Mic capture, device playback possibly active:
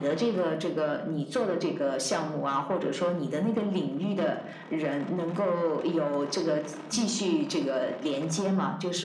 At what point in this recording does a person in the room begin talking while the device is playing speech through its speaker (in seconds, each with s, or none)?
6.8 s